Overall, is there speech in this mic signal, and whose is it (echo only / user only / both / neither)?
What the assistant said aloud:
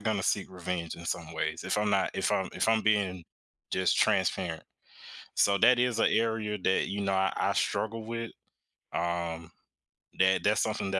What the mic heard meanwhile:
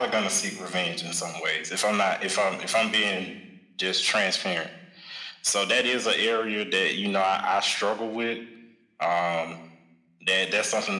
echo only